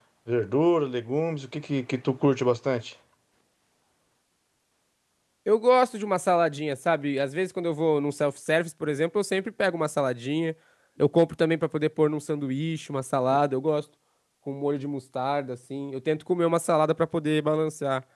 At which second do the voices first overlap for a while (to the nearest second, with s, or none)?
none